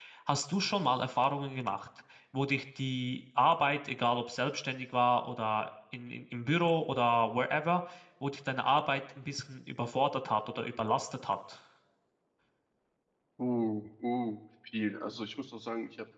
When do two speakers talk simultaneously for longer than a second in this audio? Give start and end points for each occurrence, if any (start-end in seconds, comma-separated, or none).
none